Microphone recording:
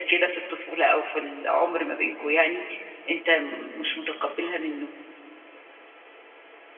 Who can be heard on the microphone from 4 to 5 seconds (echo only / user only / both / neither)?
echo only